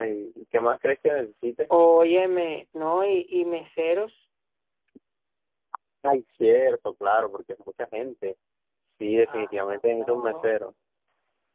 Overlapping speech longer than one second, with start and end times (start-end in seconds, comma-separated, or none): 9.3-10.6